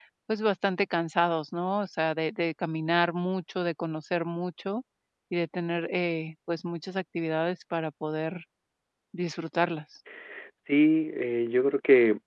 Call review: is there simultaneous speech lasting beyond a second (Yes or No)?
No